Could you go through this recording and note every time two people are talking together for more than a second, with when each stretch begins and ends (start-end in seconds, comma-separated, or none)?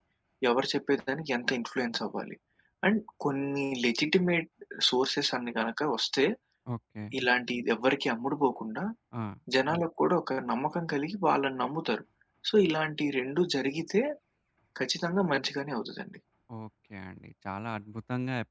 none